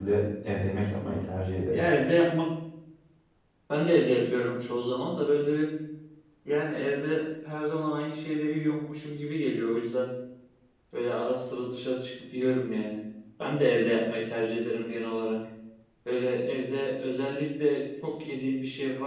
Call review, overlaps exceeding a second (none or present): none